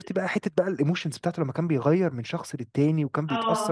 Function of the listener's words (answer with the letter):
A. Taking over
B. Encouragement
B